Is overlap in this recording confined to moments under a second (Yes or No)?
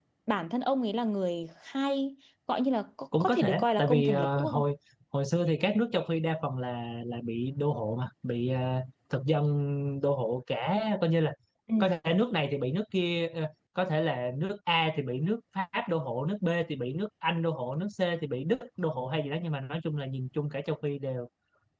No